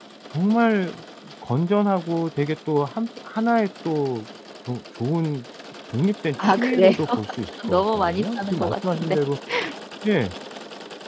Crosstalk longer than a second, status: present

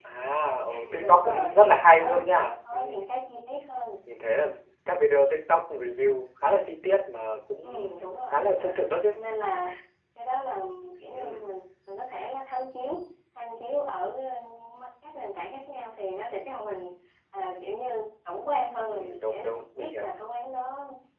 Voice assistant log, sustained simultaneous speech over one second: present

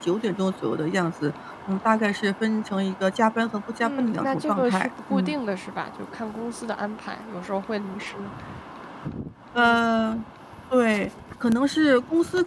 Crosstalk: present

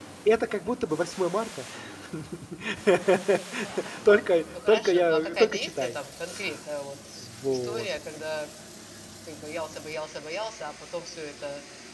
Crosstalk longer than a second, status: present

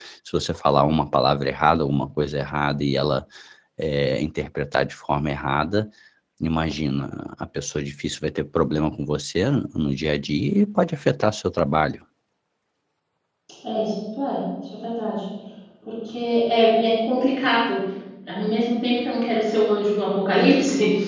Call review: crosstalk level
none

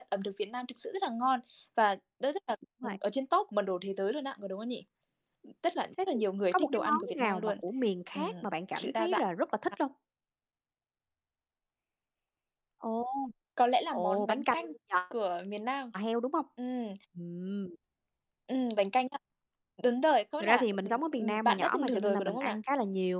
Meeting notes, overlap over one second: present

